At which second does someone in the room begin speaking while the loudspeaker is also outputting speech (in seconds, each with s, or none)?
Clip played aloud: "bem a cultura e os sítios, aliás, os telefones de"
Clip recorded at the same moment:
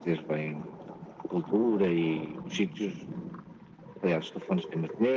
none